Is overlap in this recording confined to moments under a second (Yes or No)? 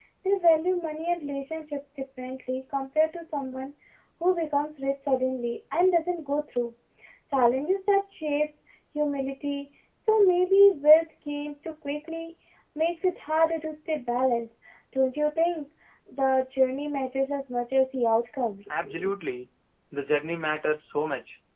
Yes